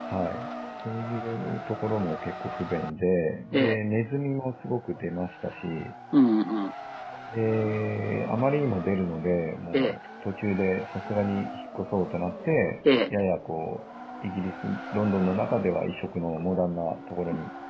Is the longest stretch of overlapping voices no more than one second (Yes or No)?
Yes